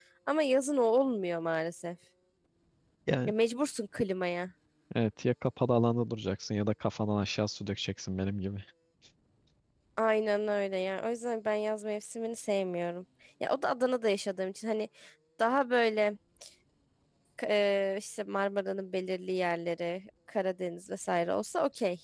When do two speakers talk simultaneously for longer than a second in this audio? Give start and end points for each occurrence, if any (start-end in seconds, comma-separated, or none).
none